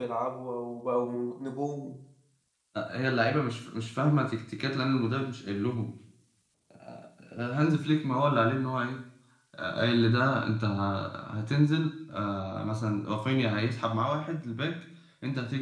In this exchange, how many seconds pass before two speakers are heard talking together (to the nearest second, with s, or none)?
none